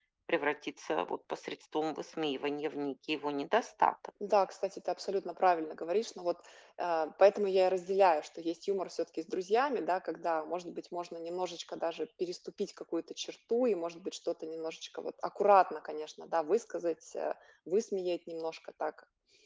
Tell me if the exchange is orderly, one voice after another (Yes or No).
Yes